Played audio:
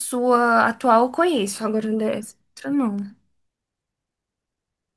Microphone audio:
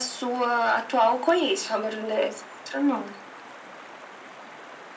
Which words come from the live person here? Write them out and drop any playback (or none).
none